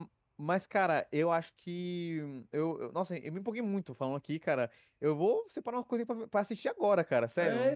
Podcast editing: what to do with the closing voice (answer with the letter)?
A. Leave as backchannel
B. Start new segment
B